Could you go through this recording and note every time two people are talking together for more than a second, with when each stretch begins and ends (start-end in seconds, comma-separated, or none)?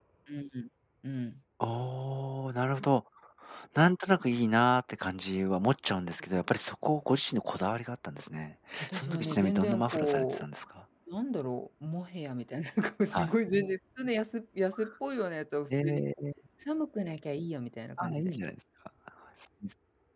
8.8-10.4